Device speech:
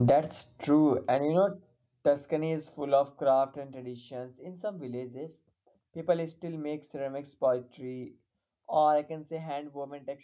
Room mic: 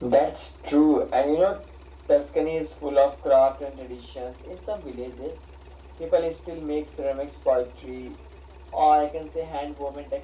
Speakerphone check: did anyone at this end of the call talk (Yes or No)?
No